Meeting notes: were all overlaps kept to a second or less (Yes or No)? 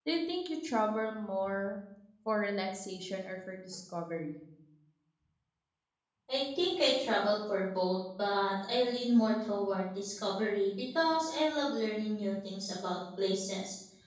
Yes